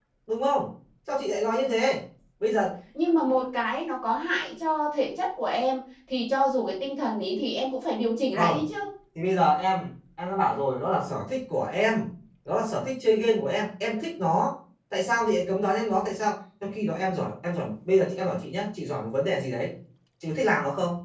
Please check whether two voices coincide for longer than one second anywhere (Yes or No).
No